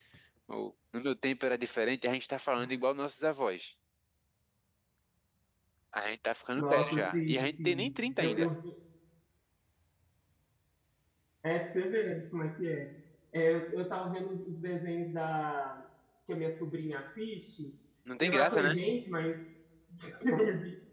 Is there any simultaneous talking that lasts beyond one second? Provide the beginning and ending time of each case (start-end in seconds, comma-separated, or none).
6.6-8.5